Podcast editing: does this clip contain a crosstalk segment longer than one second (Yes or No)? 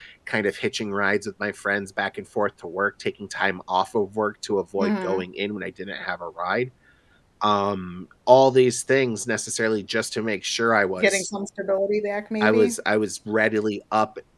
No